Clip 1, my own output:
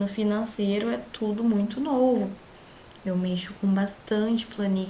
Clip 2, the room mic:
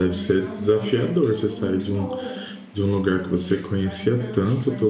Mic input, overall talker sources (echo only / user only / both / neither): both